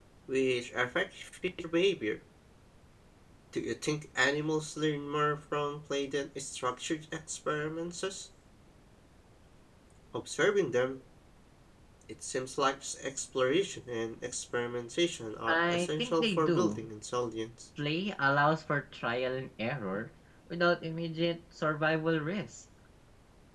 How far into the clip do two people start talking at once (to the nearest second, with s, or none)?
15 s